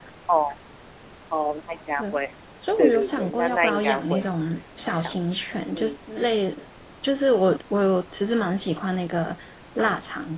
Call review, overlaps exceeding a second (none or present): present